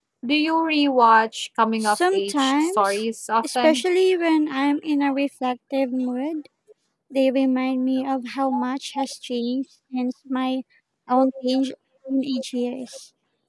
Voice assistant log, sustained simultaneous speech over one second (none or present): present